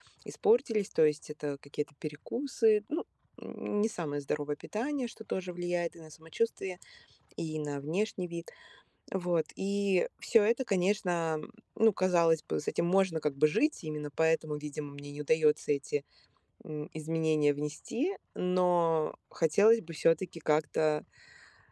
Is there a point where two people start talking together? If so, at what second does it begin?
none

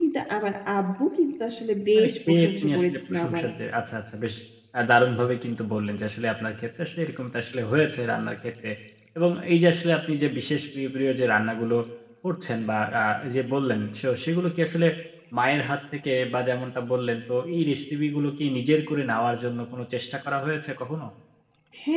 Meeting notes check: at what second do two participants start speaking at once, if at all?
2.0 s

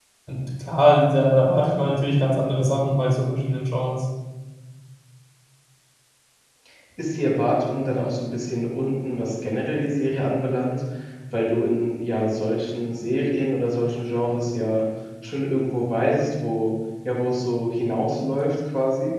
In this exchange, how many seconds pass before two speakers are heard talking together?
none

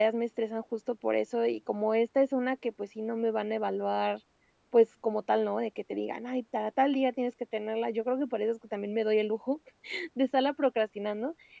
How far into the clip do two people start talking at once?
none

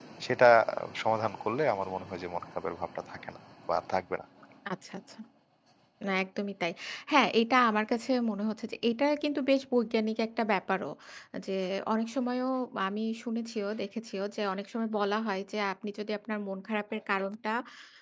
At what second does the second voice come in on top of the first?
none

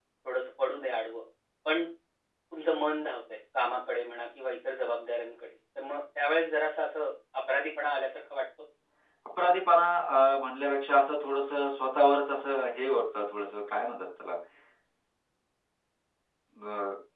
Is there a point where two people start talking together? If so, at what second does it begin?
none

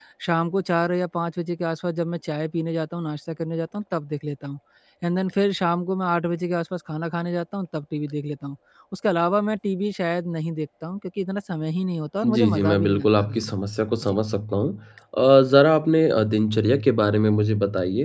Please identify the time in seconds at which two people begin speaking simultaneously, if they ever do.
12.2 s

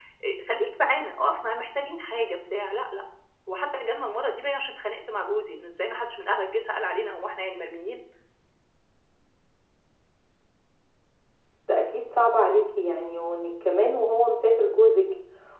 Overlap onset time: none

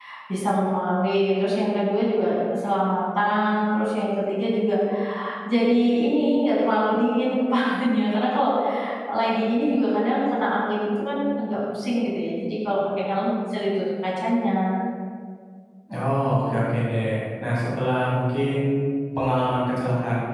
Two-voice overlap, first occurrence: none

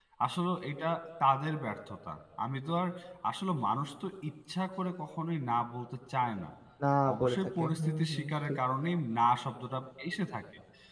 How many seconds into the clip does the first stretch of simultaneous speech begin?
7.1 s

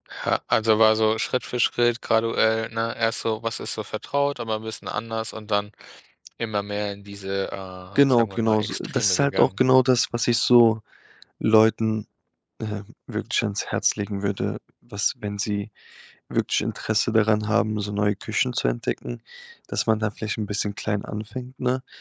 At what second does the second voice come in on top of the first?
8.0 s

